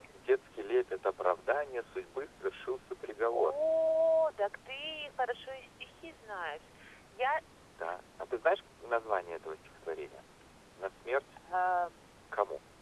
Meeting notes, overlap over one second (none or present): none